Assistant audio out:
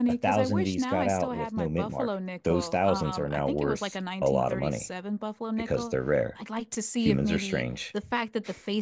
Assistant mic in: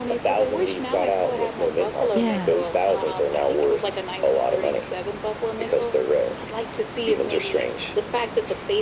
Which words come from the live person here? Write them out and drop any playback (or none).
Yeah.